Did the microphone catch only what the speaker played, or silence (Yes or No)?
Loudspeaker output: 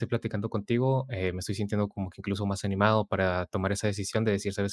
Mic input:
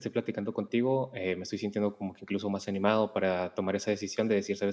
Yes